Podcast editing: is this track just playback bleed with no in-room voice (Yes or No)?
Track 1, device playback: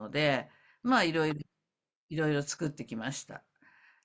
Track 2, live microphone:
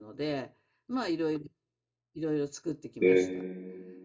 No